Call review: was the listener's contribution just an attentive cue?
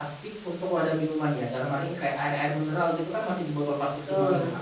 Yes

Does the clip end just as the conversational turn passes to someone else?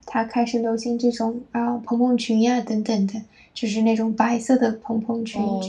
Yes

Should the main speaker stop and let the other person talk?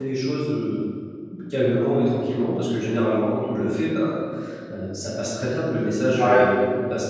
No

